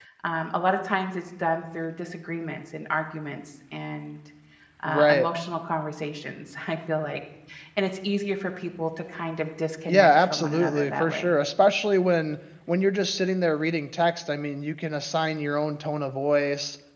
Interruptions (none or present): present